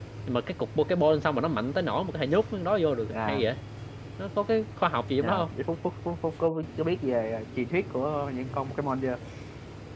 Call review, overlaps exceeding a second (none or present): none